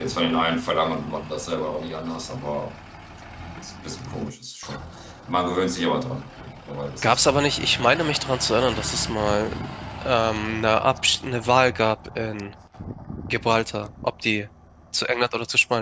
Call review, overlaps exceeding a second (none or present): none